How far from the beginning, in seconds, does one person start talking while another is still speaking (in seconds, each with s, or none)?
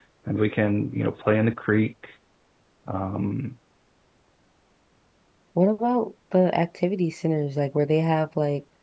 none